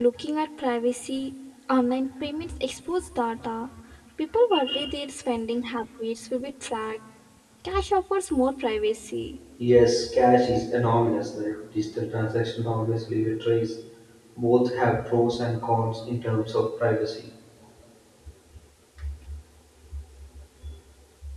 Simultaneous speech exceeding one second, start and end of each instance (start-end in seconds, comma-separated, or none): none